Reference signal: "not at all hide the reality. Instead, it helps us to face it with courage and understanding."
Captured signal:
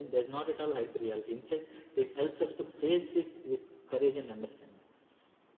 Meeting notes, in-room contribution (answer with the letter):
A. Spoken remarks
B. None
B